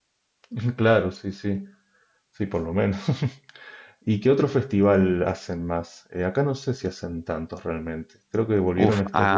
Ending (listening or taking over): taking over